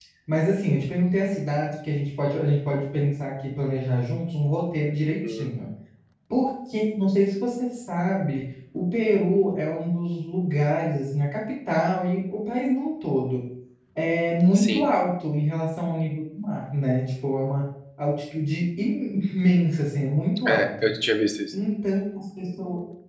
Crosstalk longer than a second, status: none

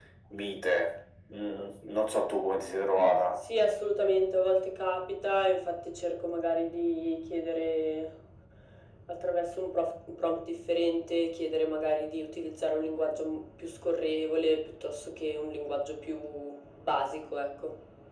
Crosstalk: none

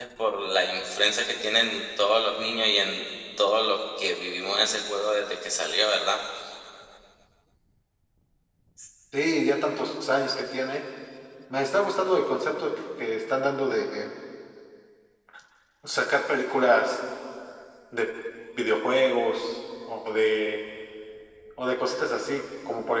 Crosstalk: none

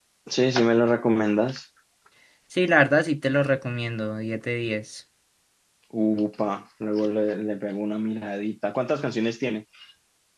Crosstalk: none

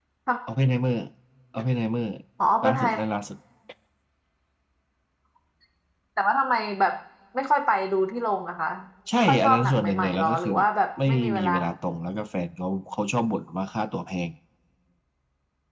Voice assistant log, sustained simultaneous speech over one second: present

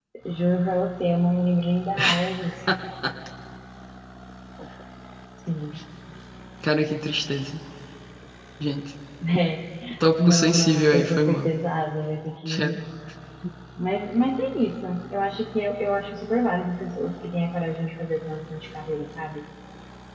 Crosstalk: present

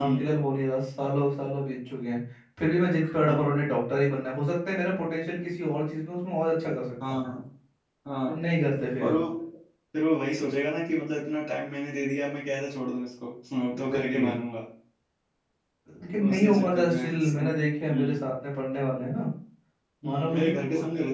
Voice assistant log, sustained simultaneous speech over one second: present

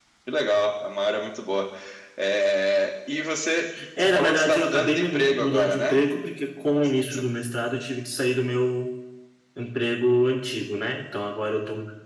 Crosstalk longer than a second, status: present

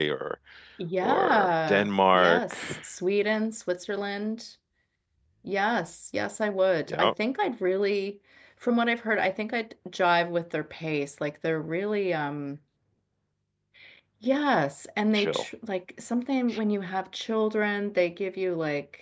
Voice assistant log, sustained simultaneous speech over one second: present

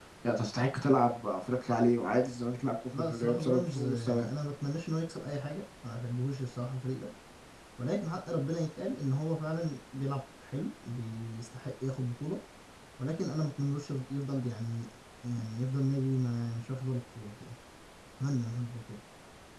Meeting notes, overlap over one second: present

